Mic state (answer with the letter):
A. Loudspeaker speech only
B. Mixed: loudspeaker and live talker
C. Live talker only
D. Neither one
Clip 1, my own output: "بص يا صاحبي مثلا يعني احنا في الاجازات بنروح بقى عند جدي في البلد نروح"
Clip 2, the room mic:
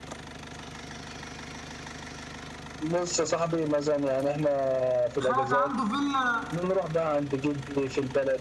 B